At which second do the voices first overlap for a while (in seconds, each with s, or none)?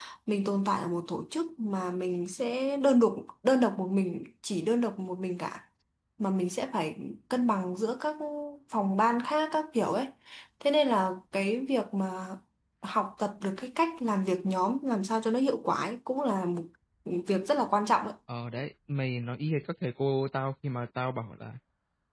none